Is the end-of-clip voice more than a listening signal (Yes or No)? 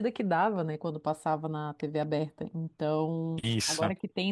No